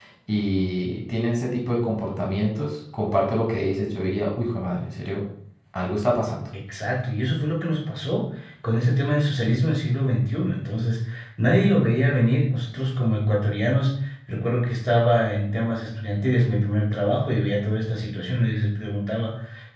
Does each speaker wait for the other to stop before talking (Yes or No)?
Yes